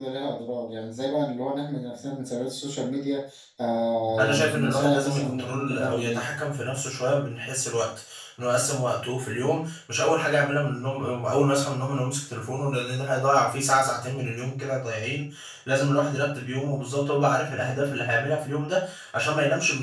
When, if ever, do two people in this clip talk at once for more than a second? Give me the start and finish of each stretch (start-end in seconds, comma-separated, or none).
4.2-6.2